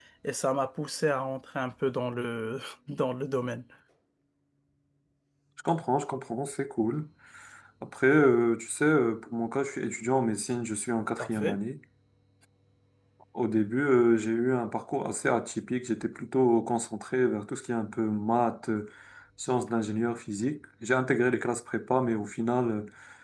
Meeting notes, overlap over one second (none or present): none